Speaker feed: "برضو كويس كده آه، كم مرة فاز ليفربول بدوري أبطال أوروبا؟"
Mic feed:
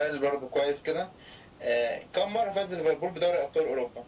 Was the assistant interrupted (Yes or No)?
No